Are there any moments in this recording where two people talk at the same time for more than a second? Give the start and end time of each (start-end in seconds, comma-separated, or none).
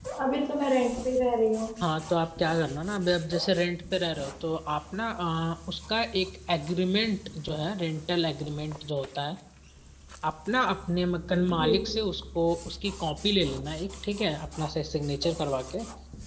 none